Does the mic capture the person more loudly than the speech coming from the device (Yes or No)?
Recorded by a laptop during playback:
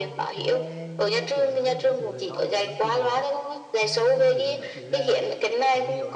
No